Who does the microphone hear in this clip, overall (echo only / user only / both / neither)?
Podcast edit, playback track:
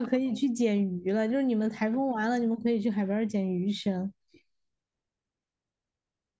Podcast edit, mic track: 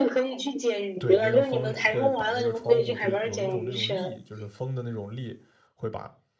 both